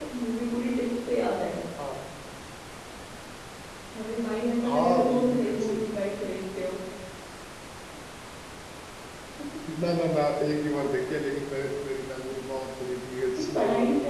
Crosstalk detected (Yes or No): Yes